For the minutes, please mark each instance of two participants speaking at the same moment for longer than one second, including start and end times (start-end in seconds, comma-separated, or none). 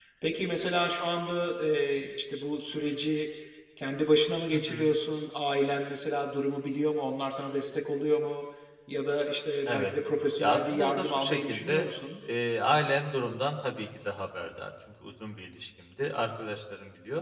10.4-11.9